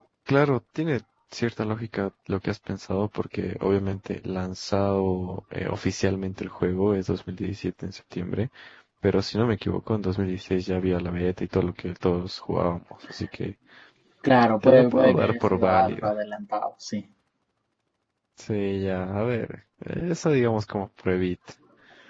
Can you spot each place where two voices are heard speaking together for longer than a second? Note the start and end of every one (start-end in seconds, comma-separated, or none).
14.6-16.1